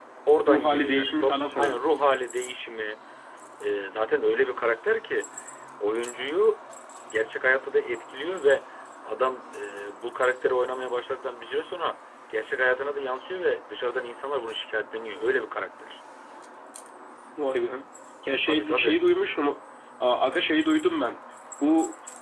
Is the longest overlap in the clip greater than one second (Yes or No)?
Yes